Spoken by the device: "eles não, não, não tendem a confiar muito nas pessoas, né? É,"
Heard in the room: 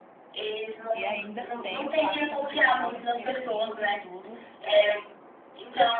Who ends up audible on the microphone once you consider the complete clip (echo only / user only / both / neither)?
both